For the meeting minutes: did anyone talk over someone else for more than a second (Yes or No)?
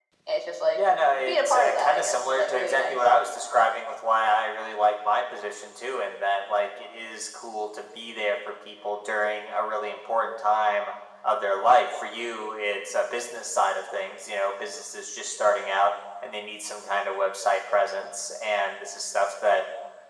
Yes